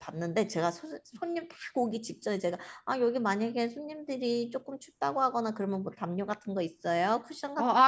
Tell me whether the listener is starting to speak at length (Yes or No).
Yes